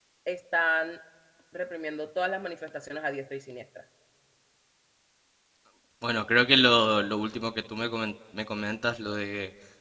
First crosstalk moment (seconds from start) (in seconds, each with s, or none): none